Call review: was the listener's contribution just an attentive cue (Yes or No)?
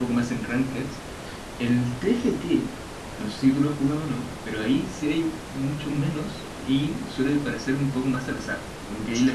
Yes